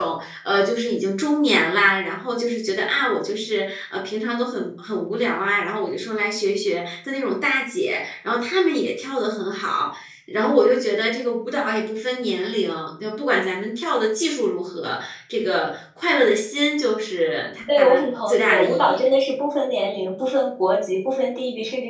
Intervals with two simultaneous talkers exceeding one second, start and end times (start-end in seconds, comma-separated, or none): 17.8-19.0